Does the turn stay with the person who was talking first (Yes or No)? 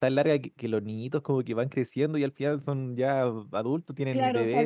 No